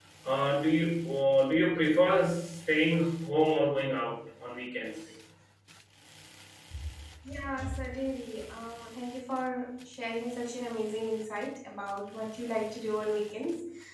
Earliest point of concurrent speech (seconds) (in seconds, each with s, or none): none